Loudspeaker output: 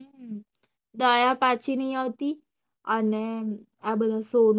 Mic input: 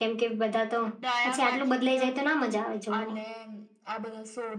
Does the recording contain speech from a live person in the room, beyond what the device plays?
Yes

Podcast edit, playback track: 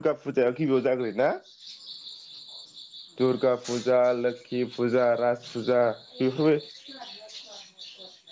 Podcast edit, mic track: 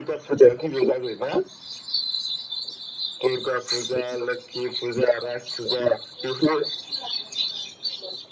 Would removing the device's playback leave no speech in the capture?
Yes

